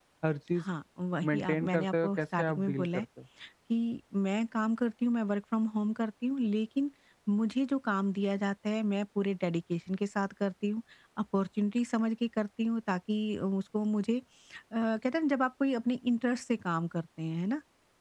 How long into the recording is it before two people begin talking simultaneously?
1.3 s

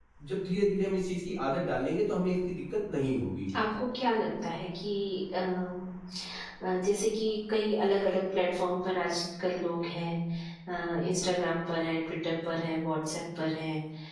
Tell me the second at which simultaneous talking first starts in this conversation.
none

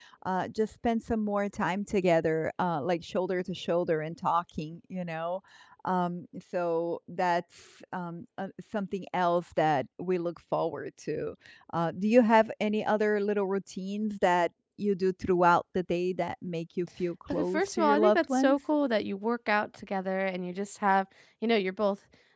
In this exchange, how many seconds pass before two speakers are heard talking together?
17.3 s

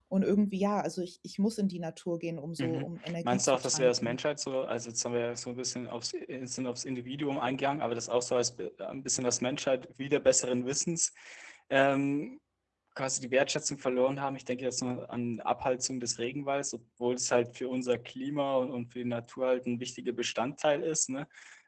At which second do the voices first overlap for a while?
2.6 s

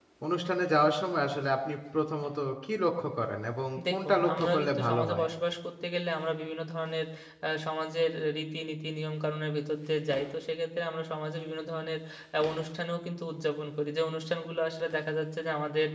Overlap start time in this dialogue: 3.8 s

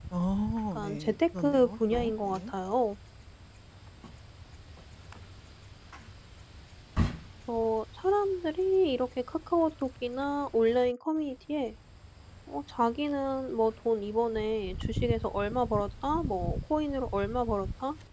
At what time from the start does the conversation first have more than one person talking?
0.7 s

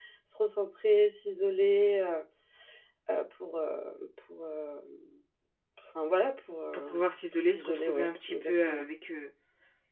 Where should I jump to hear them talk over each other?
6.7 s

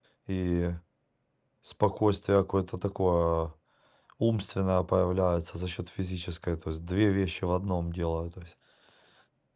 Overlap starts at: none

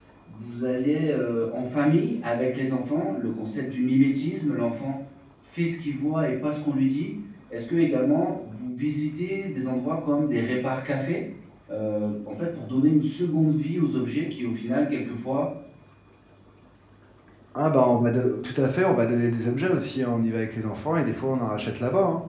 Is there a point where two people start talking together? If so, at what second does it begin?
none

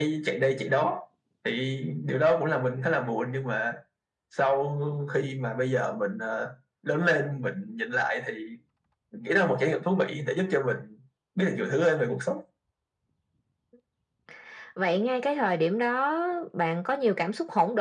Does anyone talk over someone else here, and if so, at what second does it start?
none

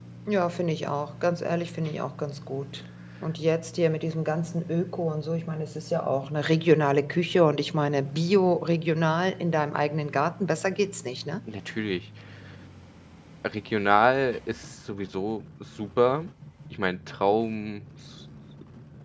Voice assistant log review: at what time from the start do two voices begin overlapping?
none

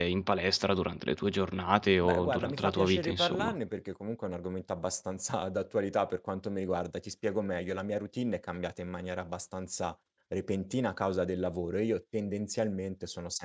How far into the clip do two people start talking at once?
2.0 s

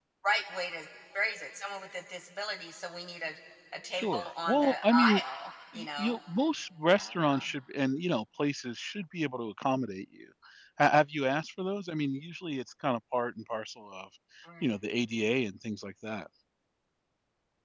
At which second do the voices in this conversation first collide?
3.9 s

